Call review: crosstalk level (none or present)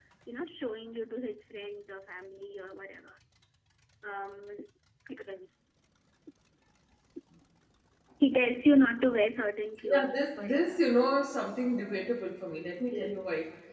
present